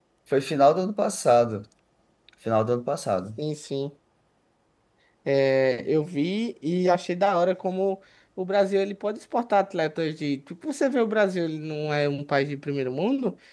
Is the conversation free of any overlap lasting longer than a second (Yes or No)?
Yes